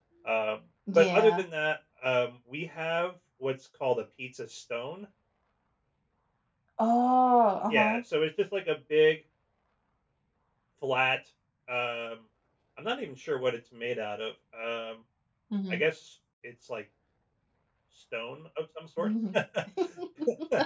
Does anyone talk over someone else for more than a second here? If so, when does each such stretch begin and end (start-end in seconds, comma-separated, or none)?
none